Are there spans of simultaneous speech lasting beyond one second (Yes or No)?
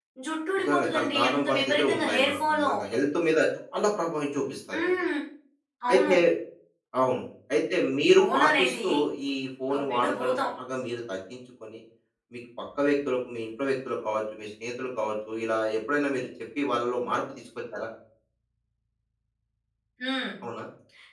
Yes